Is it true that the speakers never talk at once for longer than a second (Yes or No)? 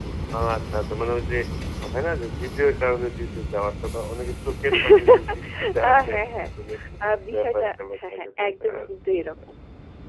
No